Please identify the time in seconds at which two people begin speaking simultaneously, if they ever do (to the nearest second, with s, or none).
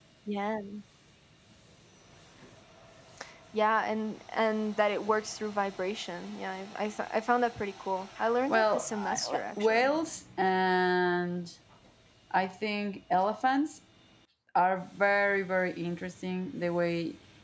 8 s